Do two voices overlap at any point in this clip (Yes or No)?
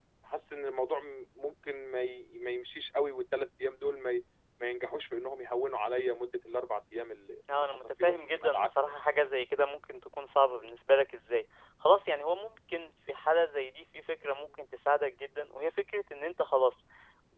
Yes